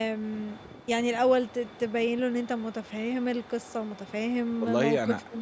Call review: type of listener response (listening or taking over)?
taking over